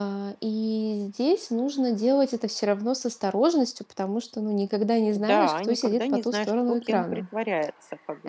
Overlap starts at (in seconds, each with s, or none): 5.1 s